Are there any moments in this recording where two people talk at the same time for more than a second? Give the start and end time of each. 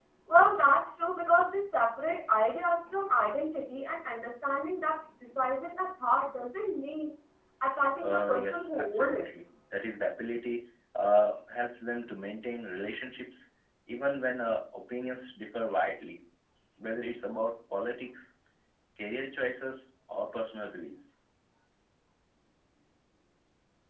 8.0-9.2

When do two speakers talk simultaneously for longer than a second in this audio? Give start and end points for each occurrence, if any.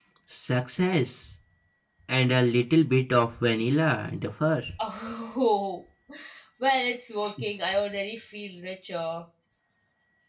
none

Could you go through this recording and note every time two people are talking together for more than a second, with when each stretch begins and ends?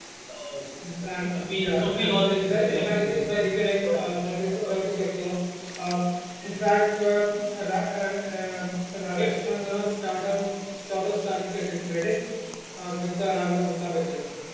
1.3-3.2

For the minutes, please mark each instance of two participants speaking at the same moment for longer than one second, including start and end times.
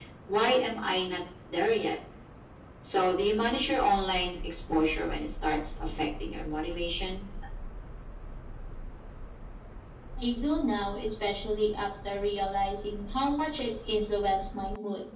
none

